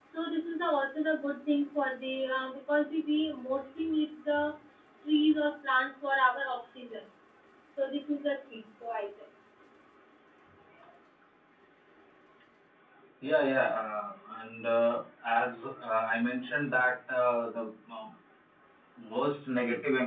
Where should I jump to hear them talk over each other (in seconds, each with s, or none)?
none